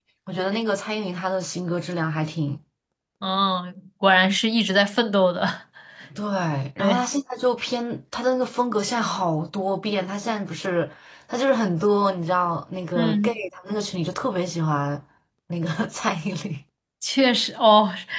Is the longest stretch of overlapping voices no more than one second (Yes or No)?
Yes